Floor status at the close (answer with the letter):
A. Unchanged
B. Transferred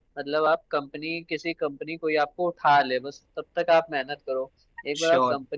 A